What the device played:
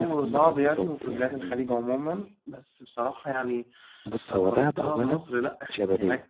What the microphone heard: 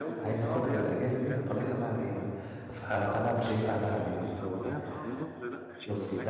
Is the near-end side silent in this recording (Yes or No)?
No